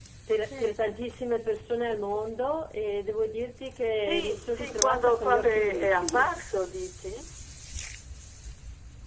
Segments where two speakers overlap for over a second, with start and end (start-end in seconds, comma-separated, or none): 4.0-6.3